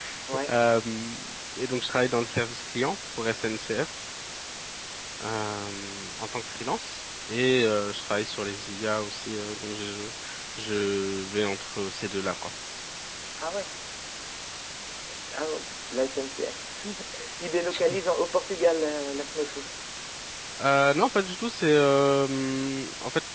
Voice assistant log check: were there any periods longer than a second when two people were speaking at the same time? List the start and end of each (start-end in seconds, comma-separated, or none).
none